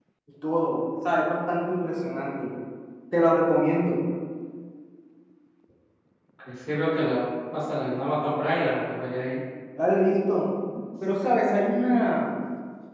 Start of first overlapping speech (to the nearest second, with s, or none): none